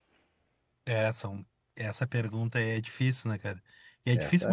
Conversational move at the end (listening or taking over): listening